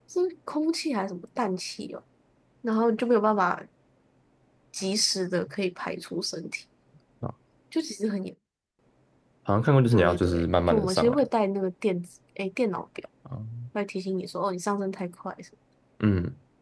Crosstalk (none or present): present